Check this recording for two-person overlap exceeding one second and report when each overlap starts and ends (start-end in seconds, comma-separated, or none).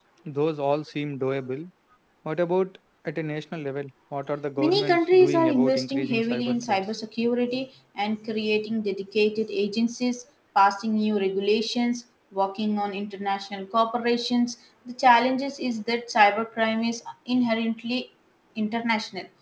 4.6-6.8